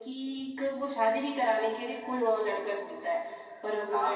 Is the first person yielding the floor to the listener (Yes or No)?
No